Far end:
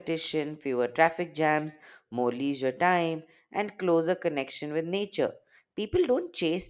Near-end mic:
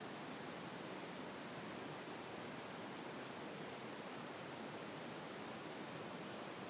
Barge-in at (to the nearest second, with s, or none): none